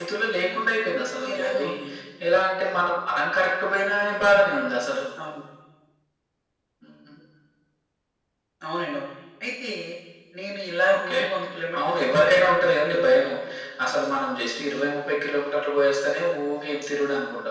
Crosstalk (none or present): present